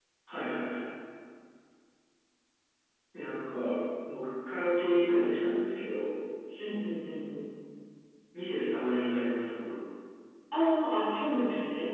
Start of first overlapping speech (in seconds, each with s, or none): none